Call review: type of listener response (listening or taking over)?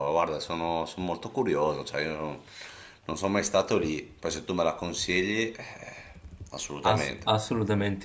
taking over